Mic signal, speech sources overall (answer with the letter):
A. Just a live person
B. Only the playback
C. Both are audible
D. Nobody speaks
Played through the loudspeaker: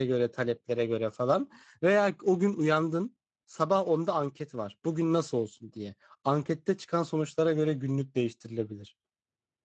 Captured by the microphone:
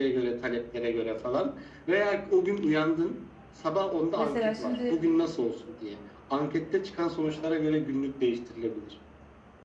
C